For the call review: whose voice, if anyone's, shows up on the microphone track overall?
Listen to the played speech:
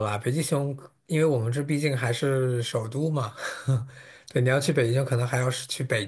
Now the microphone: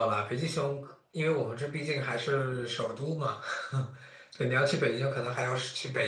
echo only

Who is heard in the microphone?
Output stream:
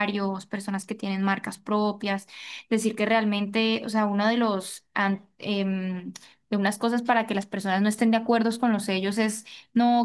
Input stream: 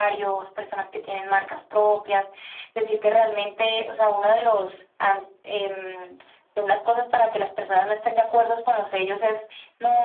echo only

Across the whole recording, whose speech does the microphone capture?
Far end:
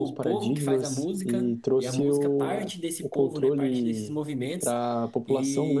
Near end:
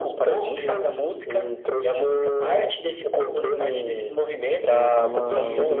both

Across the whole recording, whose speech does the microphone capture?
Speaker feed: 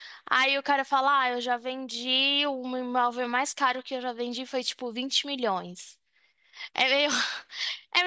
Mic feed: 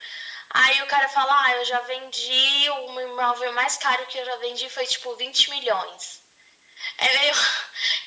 echo only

